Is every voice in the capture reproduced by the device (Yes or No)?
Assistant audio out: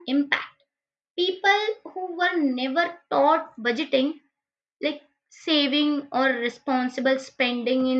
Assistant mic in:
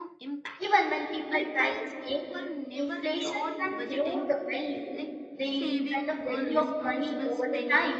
No